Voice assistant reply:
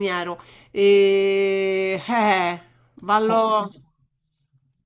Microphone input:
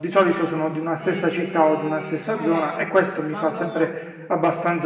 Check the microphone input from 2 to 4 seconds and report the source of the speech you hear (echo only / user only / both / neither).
both